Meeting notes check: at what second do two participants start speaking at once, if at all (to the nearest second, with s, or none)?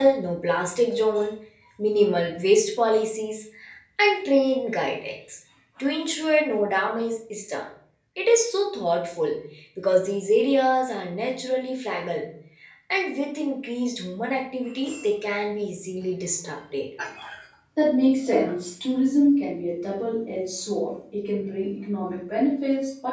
none